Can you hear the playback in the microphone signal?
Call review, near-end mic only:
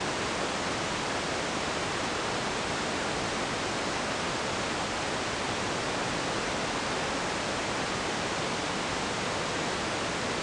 No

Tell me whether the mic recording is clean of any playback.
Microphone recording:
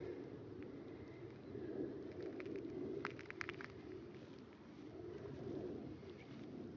Yes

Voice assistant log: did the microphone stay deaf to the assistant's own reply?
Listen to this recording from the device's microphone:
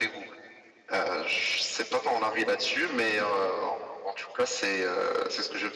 No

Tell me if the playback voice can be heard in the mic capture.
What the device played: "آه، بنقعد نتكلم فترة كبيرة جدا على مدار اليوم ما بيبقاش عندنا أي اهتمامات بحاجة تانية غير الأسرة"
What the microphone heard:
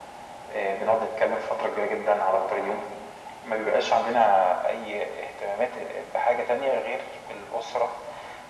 Yes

